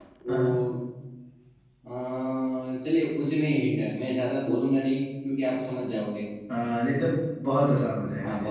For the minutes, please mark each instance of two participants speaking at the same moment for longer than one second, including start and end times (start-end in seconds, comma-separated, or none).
none